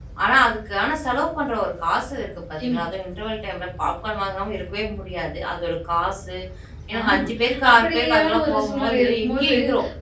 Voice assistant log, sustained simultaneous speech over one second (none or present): present